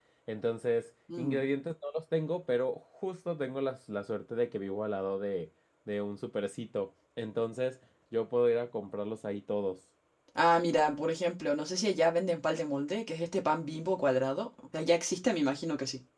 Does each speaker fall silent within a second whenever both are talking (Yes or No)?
Yes